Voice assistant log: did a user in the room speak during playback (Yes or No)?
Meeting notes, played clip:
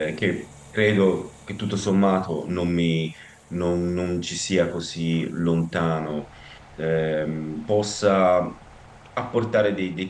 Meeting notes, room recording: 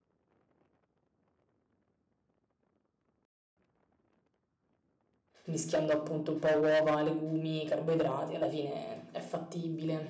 Yes